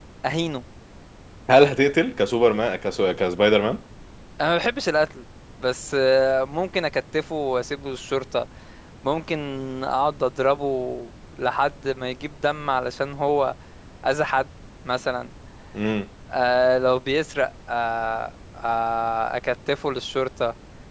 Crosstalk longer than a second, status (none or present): none